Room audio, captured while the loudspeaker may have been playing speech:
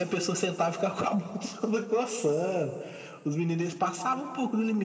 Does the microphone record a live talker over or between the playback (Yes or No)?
No